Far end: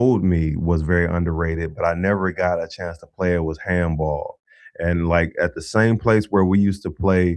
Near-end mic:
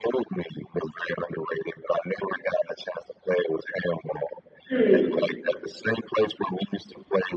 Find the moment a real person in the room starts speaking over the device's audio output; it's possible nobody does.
5 s

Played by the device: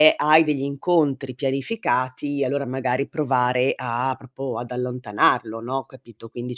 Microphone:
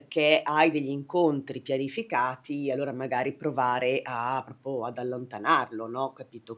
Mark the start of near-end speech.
none

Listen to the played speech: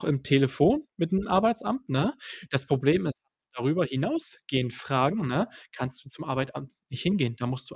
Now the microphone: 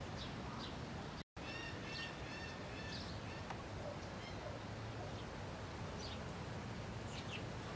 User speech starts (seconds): none

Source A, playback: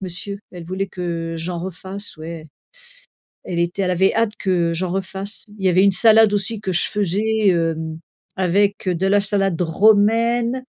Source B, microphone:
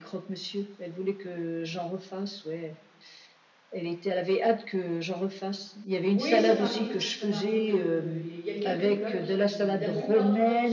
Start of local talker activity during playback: 6 s

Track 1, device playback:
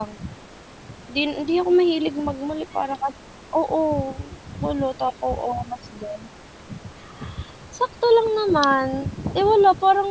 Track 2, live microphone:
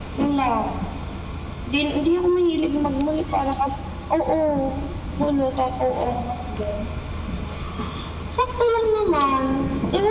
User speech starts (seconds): none

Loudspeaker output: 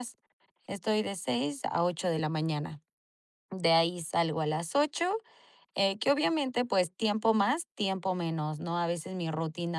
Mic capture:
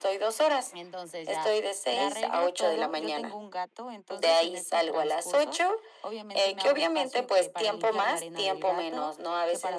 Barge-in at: 1 s

